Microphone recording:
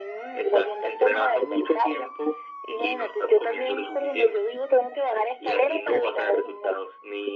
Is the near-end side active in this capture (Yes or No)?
No